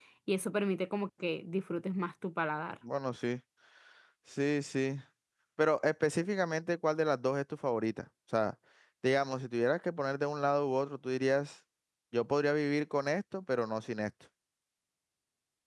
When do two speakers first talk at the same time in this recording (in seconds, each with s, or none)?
none